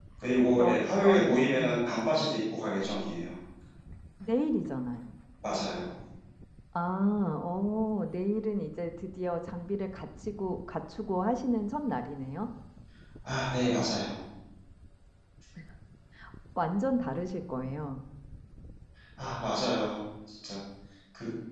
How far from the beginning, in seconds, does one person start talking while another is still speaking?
0.5 s

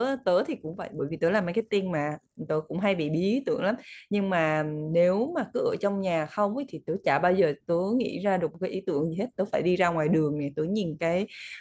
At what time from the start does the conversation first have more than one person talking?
none

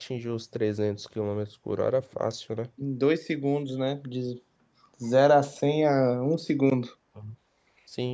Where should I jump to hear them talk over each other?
none

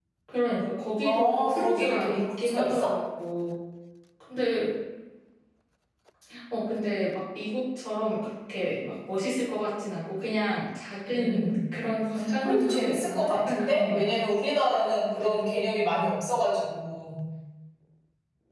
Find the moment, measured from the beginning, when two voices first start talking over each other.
1.0 s

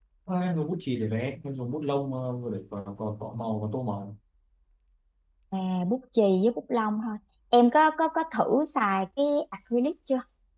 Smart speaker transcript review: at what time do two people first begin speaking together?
none

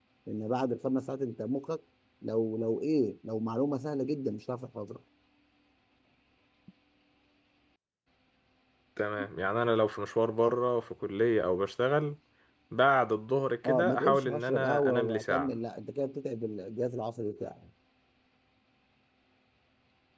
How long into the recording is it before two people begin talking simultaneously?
13.6 s

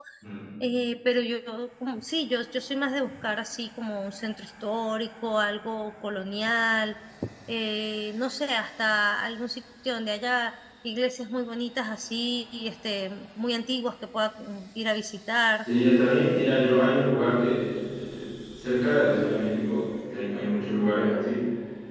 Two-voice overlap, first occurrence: none

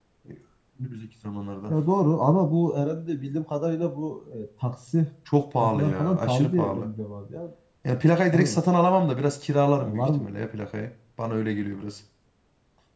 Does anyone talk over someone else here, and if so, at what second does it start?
5.6 s

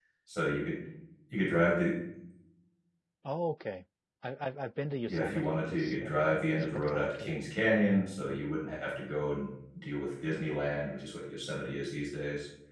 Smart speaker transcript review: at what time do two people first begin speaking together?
5.1 s

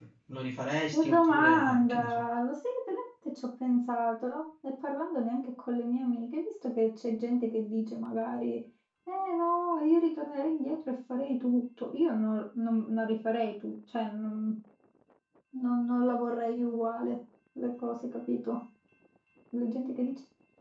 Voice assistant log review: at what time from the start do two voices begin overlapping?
0.9 s

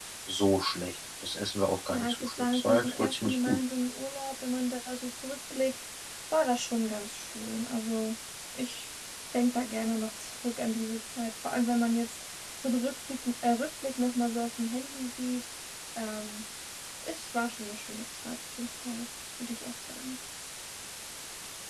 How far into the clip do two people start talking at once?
1.9 s

